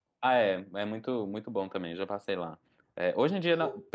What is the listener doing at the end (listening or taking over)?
listening